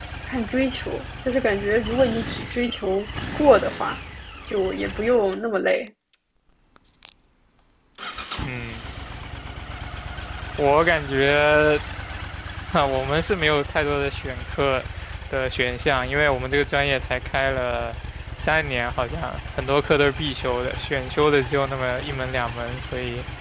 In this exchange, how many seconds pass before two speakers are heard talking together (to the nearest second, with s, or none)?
none